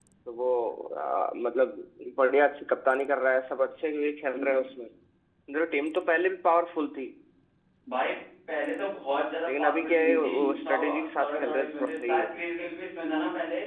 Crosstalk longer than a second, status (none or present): present